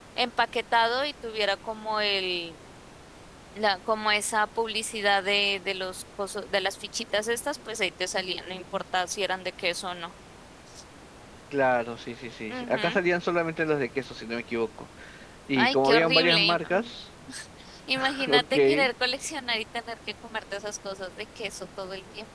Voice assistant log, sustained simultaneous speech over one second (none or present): present